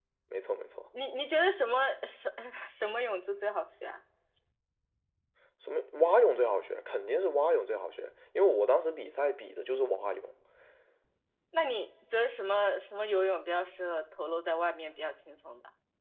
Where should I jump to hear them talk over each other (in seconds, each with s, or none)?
none